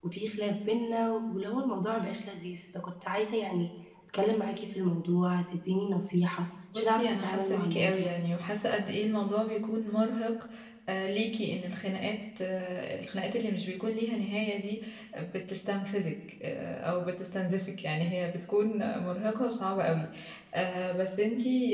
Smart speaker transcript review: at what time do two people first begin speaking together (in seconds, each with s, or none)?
6.8 s